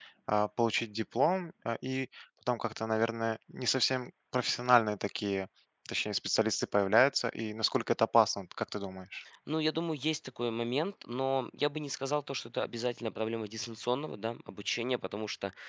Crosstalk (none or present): none